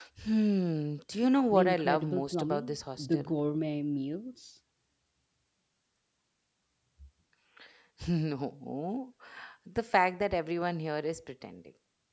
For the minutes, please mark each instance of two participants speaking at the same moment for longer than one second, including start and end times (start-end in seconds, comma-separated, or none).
1.5-3.4